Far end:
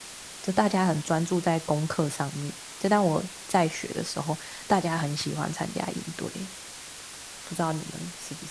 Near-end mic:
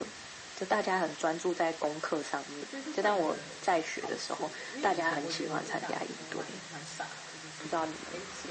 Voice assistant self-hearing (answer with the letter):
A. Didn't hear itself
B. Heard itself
B